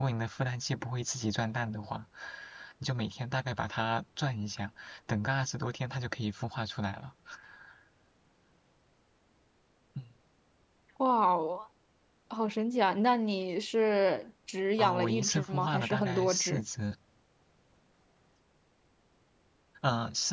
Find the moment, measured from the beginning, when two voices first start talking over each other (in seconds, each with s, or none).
14.8 s